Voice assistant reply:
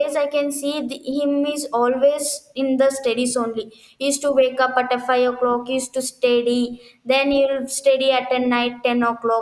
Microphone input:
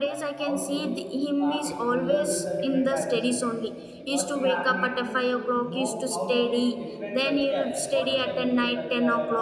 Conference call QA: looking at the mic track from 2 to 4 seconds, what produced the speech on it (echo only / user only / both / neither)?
both